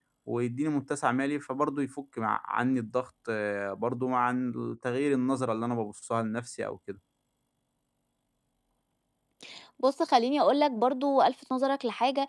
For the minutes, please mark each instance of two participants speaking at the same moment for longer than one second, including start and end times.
none

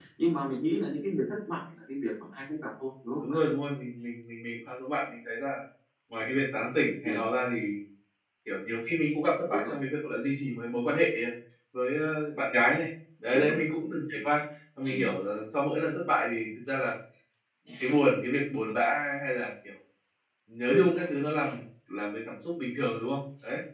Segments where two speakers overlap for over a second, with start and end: none

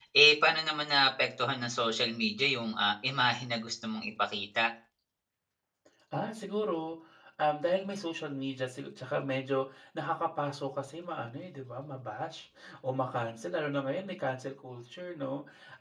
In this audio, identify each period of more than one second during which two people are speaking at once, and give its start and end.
none

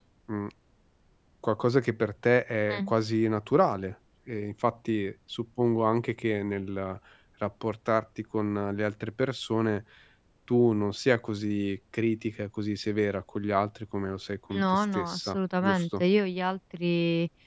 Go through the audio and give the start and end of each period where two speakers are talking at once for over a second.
14.5-16.0

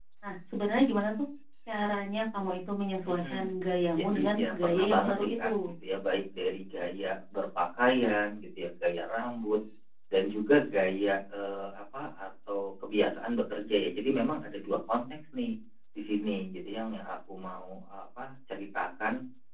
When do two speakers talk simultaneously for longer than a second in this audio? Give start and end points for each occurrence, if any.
4.0-5.7

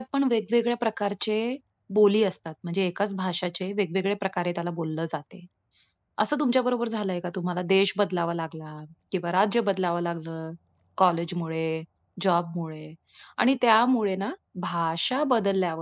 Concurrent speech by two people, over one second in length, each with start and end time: none

